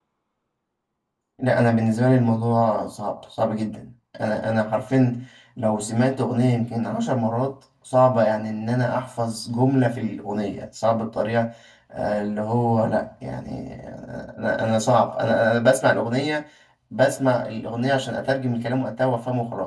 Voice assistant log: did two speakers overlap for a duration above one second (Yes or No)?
No